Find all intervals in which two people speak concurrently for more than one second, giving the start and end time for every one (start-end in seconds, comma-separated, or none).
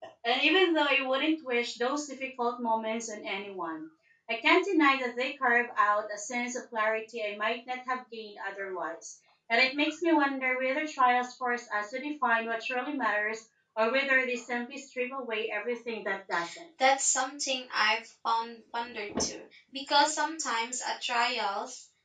none